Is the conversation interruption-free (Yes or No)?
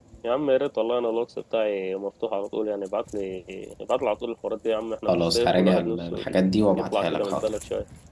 No